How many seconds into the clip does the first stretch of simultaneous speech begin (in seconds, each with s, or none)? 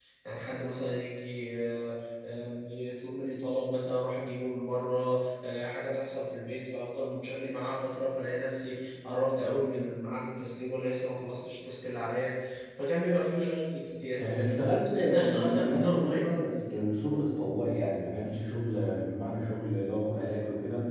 14.9 s